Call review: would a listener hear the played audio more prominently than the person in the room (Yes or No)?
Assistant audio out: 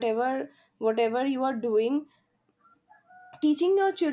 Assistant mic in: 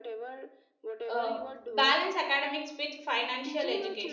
No